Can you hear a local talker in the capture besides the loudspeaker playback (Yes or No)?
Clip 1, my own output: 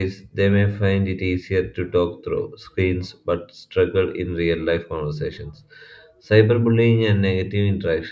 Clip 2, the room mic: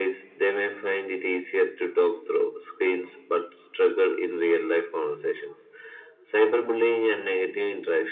No